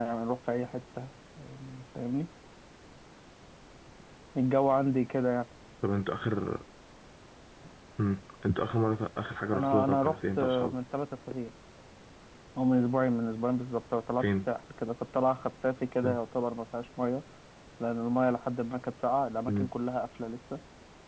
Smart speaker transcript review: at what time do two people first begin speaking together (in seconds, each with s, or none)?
9.5 s